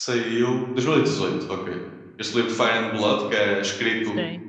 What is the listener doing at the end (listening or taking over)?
listening